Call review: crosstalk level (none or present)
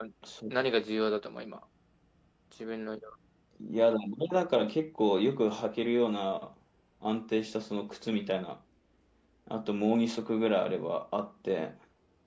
none